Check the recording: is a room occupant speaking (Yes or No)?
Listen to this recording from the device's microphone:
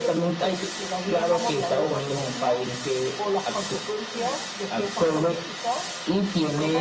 No